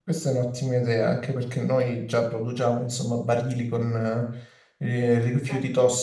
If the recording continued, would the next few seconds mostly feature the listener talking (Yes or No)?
No